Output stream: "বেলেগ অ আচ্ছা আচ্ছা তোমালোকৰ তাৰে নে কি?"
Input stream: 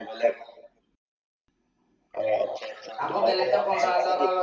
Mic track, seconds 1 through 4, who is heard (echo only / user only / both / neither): both